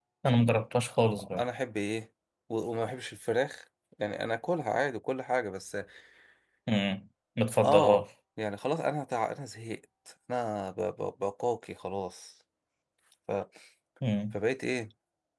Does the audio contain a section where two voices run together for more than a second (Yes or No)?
No